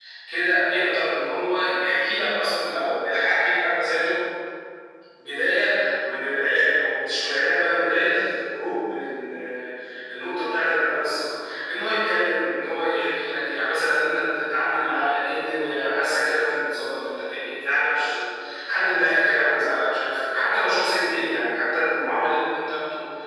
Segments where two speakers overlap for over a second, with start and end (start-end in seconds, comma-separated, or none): none